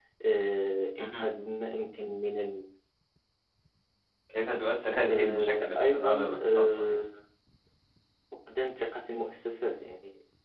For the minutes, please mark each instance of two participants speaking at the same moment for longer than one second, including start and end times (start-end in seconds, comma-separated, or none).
5.1-7.0